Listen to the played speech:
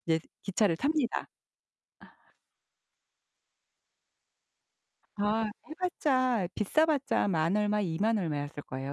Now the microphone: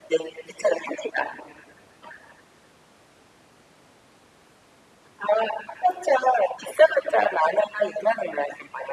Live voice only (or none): none